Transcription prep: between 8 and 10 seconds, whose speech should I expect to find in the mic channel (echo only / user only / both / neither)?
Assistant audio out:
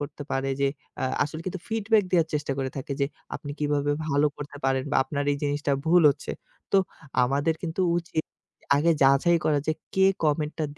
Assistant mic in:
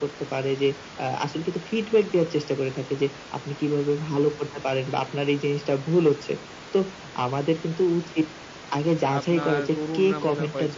both